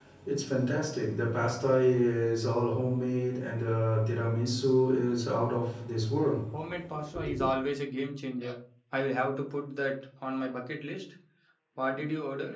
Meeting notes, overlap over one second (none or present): none